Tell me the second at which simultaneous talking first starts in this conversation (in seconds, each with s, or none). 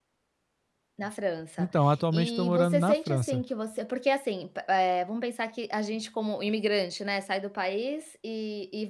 2.1 s